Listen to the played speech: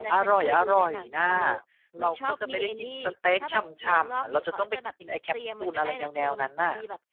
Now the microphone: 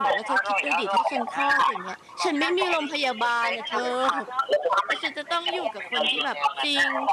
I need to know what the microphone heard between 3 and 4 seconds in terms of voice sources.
both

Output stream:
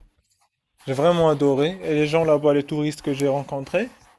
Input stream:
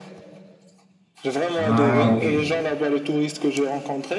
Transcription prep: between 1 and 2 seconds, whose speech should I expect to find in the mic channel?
both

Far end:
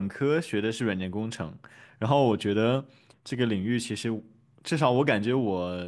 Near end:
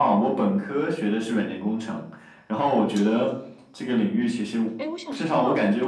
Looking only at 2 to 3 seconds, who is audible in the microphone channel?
echo only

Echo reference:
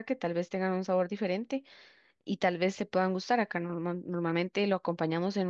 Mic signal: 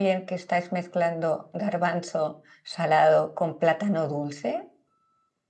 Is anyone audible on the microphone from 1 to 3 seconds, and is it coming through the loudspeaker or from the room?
user only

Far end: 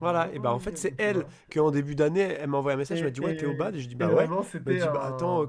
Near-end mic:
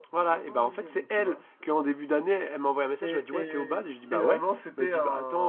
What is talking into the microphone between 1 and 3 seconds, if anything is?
echo only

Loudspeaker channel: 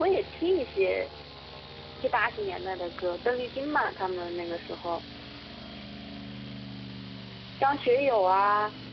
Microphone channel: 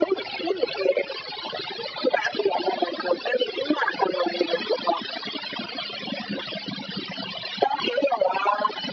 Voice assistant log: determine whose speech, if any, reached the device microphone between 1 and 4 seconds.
echo only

